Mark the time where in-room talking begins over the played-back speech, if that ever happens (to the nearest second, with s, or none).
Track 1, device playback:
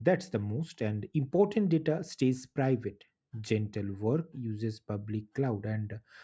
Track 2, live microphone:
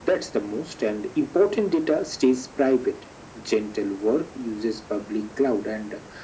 none